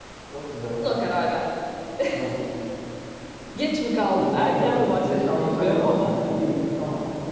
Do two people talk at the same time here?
Yes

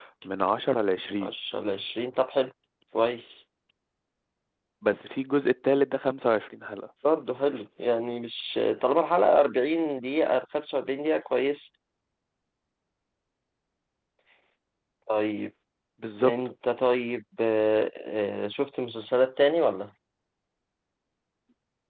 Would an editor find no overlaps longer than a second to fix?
Yes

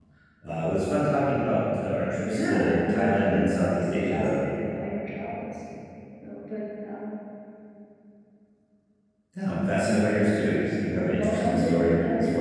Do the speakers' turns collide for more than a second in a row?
Yes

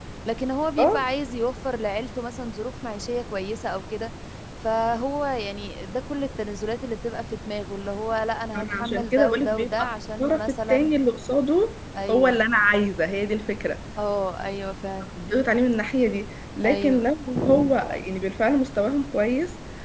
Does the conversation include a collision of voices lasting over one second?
Yes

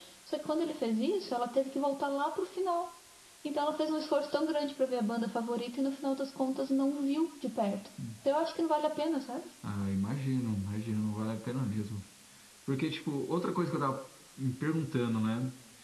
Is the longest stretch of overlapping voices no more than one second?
Yes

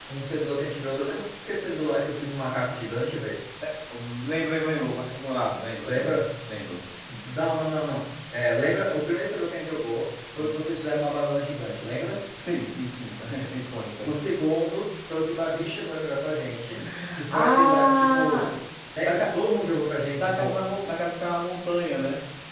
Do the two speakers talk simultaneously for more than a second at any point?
Yes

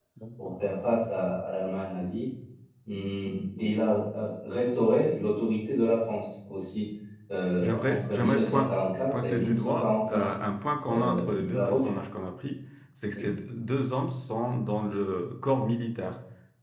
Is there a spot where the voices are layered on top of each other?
Yes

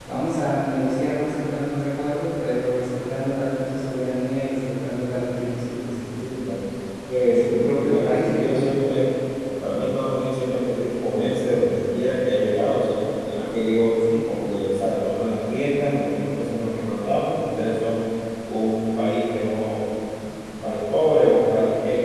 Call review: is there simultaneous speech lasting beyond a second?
Yes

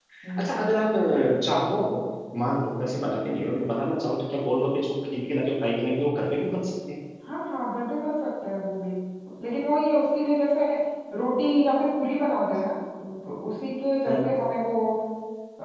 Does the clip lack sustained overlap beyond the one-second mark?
Yes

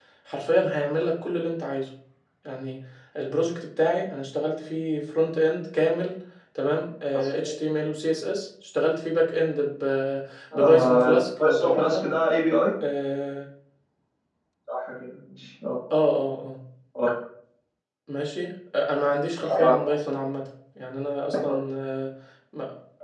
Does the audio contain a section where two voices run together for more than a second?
Yes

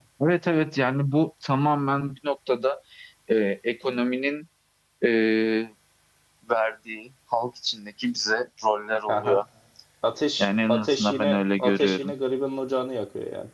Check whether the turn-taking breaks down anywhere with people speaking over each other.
Yes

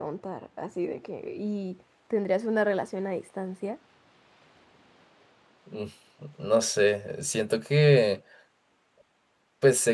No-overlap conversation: Yes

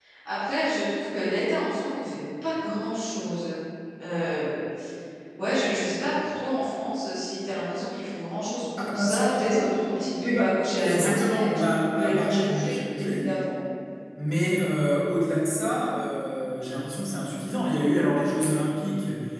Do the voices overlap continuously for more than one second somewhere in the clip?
Yes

